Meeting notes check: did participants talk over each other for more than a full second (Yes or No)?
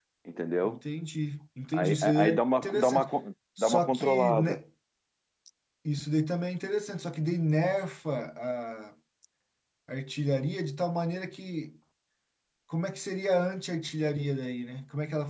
Yes